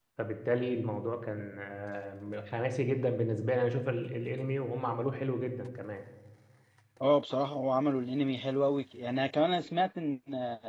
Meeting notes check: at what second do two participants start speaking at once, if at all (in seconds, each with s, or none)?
none